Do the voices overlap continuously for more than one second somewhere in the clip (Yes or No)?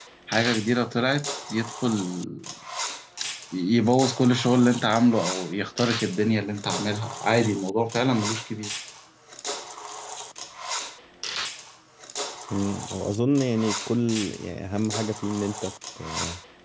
No